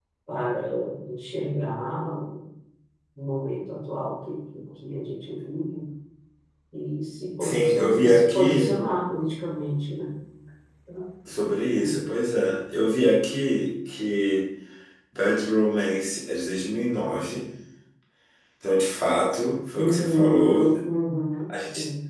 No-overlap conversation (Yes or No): No